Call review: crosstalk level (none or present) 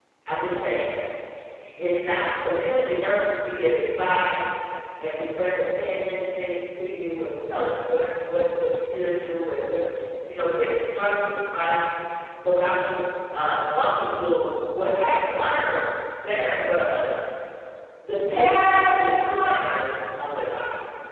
present